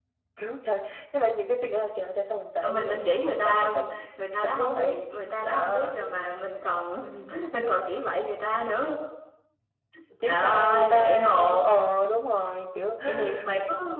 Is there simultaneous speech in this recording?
Yes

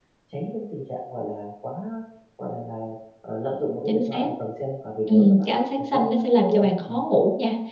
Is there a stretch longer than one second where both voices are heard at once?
Yes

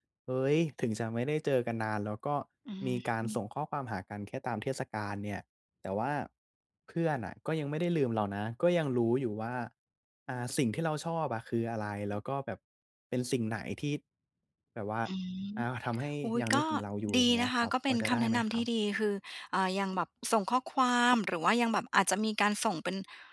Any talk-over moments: Yes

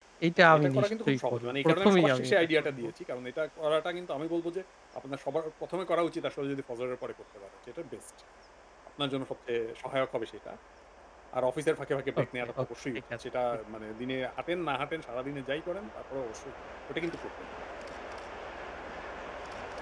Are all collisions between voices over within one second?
No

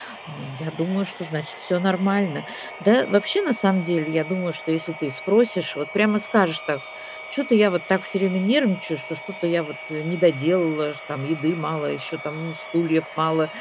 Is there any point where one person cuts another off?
No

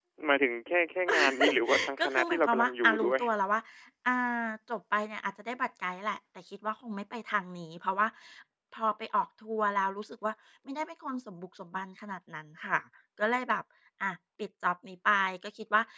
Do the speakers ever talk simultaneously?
Yes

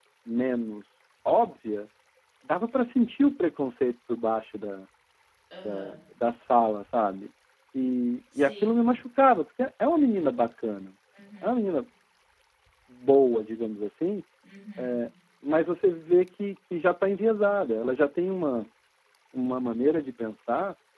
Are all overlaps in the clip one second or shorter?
Yes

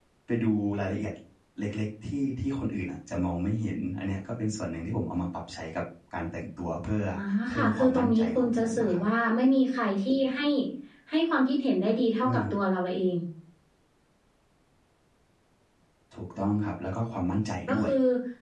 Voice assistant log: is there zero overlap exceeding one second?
No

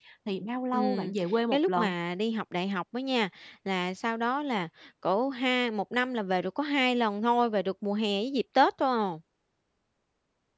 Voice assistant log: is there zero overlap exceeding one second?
Yes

